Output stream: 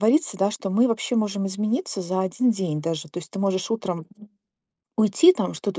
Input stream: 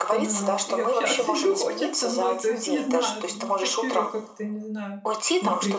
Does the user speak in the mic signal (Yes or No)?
Yes